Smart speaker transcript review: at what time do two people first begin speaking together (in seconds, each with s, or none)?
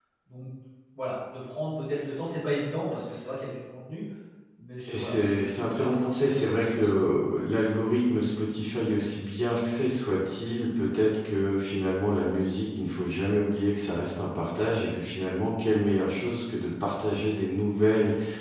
4.9 s